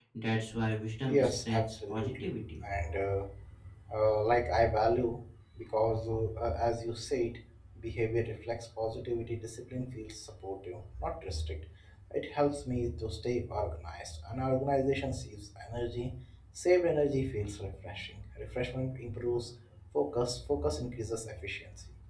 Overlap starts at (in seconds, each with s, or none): 1.0 s